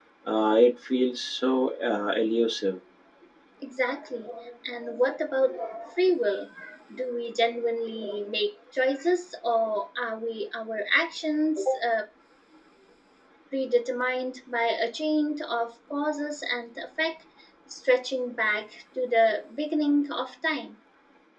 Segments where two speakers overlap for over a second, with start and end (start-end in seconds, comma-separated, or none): none